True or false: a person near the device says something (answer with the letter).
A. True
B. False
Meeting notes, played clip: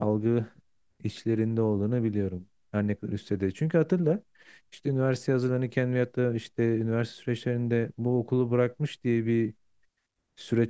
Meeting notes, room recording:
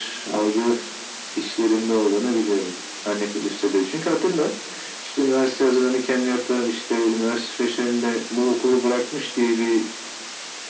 B